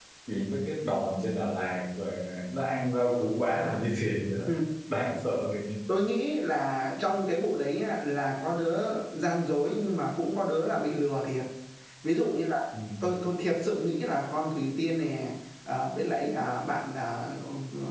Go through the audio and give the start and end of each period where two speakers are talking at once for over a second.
none

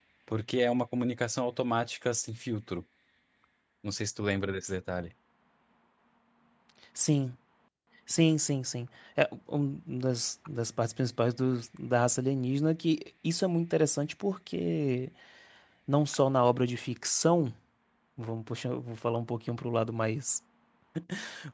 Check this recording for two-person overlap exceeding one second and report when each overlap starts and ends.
none

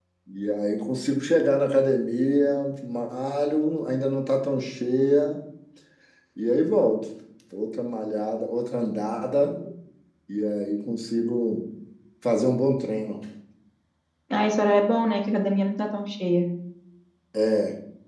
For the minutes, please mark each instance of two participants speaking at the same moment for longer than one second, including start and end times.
none

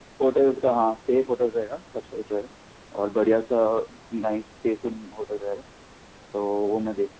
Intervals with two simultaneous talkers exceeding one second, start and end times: none

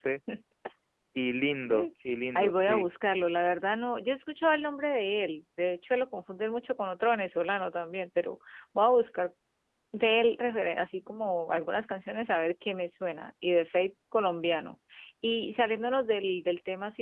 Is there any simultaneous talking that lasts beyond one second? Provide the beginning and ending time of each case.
none

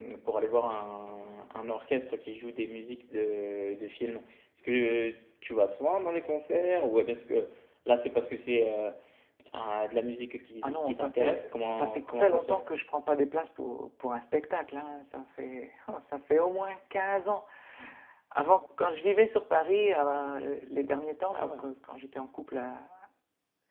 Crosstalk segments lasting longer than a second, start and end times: 10.6-12.6

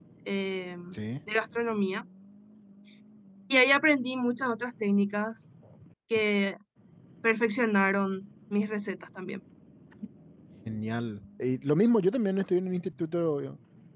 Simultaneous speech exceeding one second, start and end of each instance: none

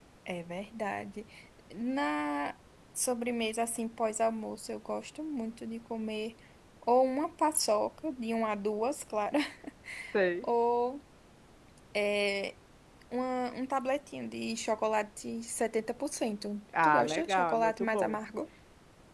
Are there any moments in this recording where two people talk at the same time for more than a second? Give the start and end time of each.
16.8-18.1

